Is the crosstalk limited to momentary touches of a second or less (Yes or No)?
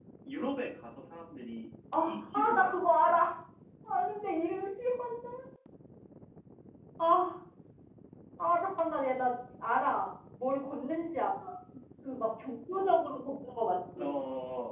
No